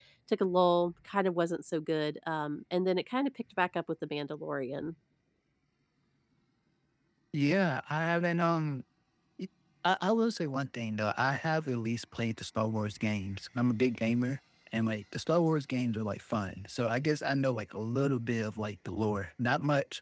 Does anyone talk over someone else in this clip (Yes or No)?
No